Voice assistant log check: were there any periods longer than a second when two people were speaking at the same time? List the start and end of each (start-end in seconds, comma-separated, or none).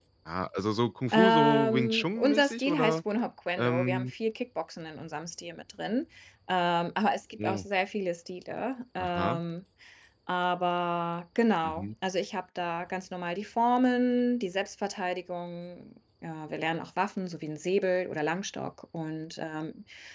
1.1-3.0